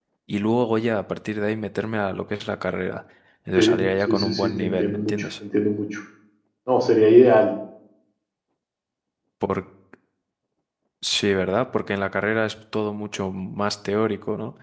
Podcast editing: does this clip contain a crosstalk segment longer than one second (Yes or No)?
Yes